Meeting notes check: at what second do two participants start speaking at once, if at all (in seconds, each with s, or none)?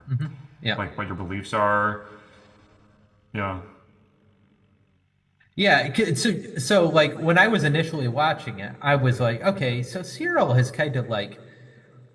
none